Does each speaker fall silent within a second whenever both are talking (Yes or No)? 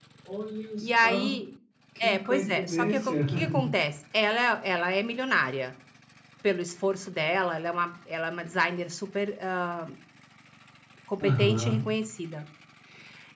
No